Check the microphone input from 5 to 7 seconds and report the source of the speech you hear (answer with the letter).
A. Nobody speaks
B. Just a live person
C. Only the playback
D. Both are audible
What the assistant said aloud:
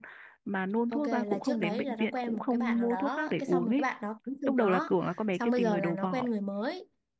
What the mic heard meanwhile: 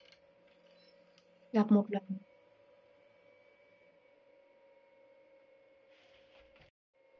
A